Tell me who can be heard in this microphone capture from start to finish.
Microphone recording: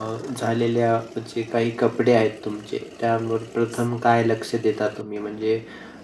user only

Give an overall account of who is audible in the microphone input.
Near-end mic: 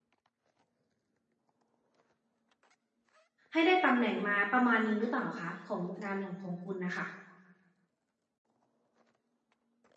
user only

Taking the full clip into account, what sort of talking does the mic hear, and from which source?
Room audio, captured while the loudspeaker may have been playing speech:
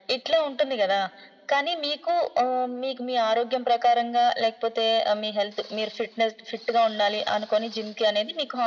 echo only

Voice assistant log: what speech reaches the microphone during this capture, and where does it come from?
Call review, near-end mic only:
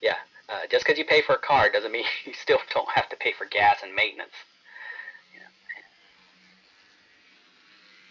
echo only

